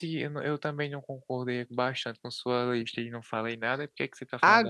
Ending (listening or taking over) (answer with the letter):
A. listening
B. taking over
B